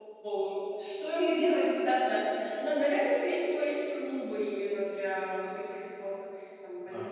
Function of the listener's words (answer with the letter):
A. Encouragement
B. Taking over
A